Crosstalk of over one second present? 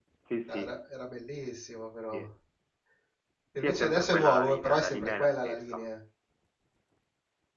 Yes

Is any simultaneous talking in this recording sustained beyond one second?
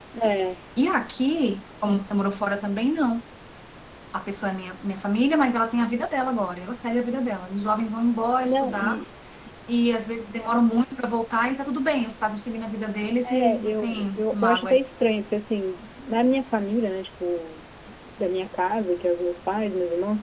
Yes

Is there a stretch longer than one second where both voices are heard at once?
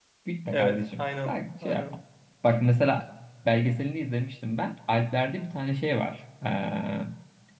Yes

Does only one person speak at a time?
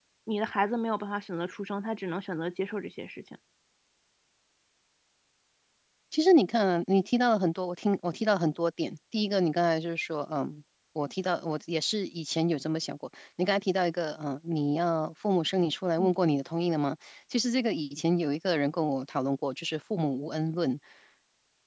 Yes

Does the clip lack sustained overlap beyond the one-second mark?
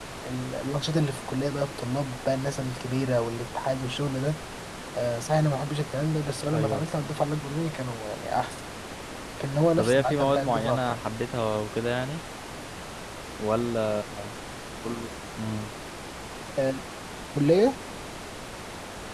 No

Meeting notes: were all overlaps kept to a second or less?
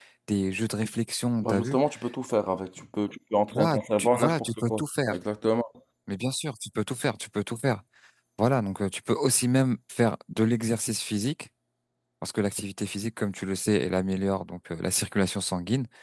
No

